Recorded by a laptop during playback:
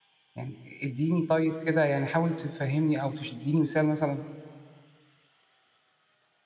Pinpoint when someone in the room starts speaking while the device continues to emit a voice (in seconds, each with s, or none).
0.3 s